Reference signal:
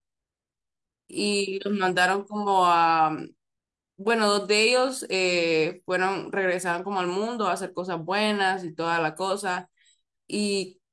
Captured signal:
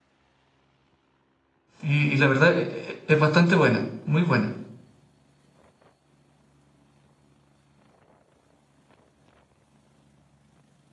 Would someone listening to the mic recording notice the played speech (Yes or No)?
No